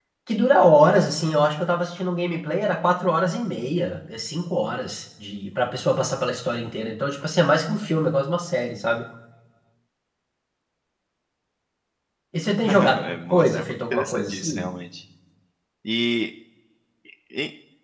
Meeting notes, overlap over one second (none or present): present